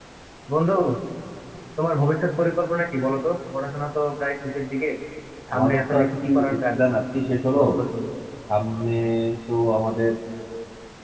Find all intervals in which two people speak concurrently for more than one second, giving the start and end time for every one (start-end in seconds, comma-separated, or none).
5.5-6.8